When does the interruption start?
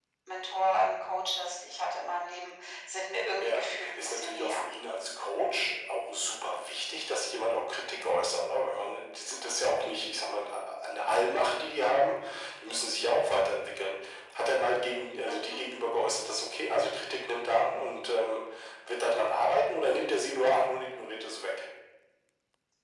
3.4 s

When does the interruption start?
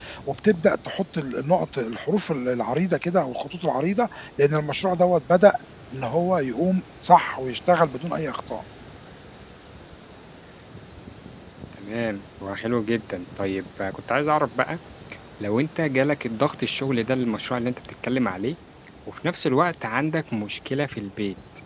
none

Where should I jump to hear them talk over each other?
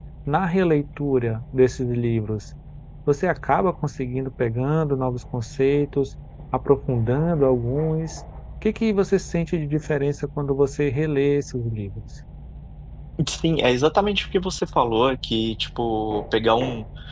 none

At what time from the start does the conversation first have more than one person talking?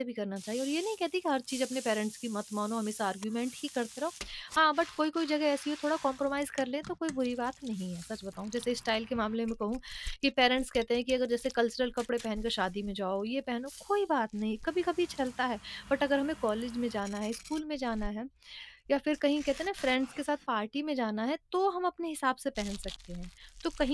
none

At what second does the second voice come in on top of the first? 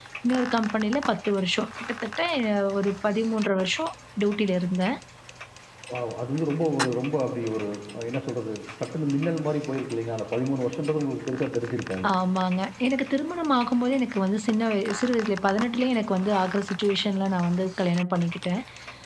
none

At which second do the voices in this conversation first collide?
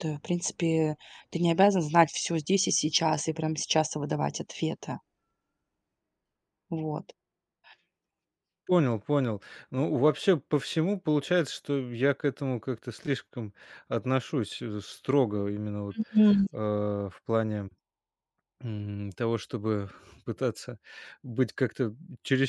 none

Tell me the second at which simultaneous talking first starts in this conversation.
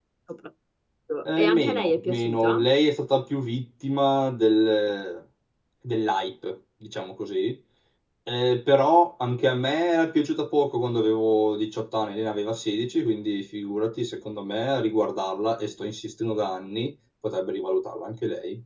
1.2 s

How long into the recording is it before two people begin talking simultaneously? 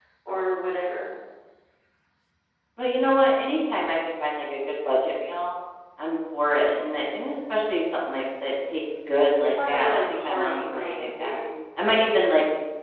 9.4 s

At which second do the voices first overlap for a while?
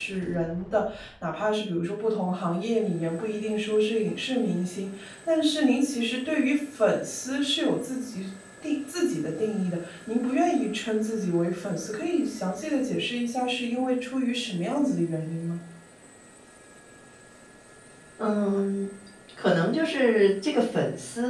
none

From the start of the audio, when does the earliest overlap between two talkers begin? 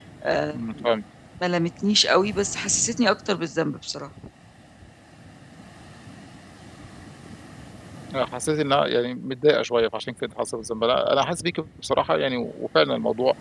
none

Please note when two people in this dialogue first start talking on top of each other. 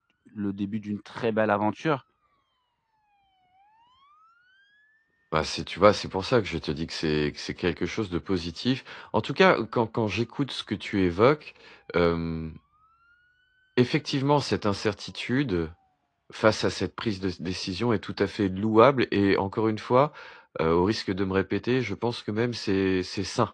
none

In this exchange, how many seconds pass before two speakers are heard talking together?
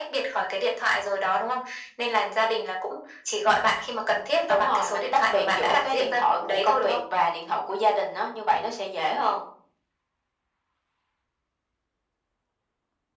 4.5 s

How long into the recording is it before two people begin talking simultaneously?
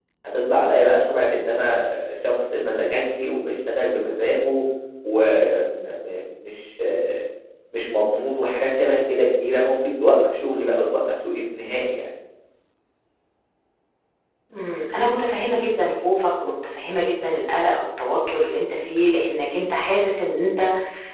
none

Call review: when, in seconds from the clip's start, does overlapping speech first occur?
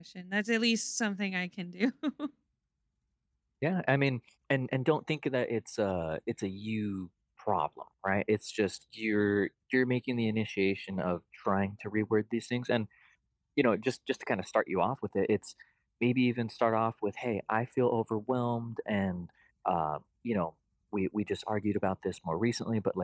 none

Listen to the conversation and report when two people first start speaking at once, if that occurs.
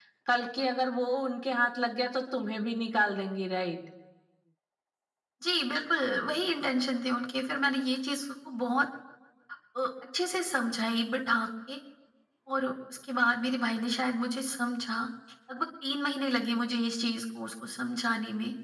none

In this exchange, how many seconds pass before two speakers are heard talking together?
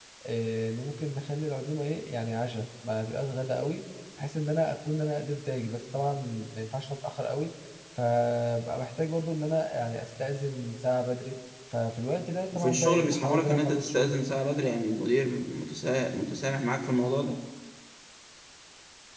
12.5 s

